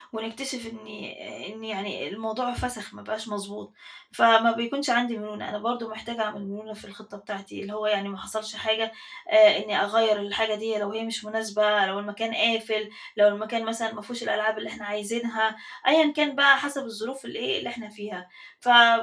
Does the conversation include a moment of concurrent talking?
No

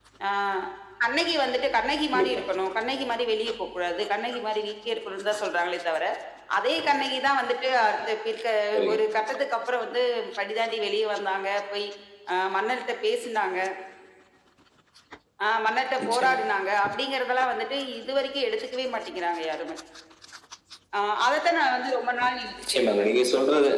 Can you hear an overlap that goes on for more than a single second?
No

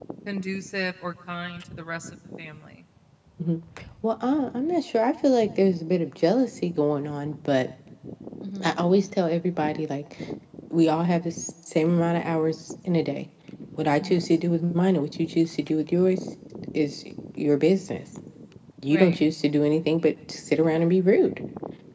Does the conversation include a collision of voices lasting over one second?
No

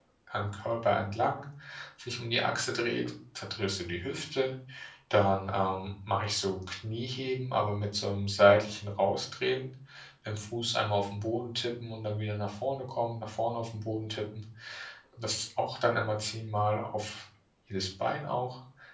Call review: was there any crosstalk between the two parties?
No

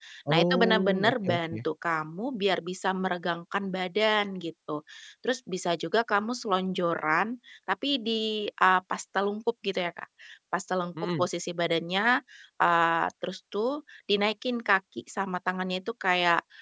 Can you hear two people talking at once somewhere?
Yes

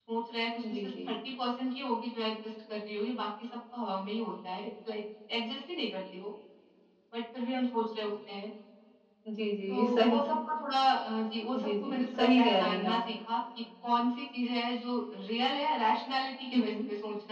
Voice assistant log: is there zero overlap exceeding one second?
No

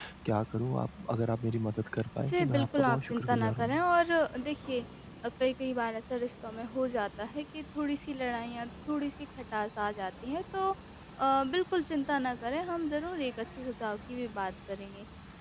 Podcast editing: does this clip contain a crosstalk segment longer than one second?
Yes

